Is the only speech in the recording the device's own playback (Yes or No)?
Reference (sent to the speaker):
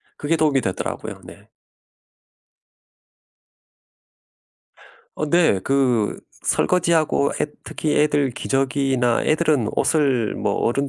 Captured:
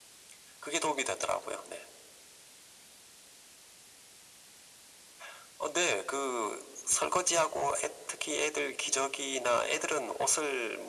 Yes